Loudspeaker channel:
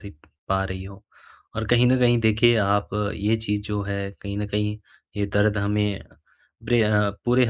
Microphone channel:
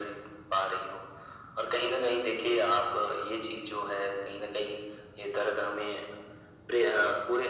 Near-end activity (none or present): none